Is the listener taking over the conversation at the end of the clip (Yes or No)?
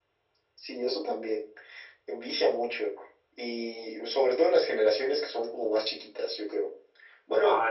No